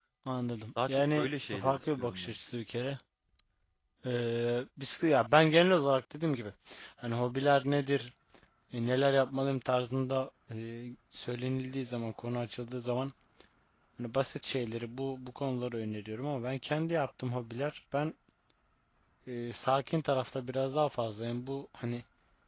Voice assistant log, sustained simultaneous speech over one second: present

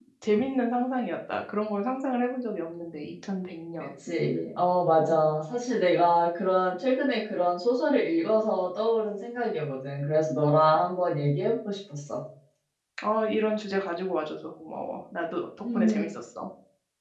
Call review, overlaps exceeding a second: none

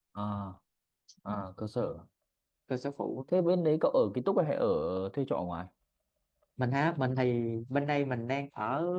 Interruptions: none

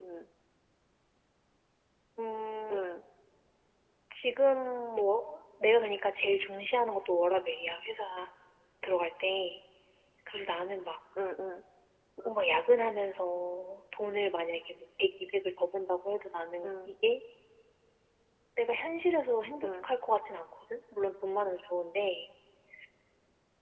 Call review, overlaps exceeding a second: none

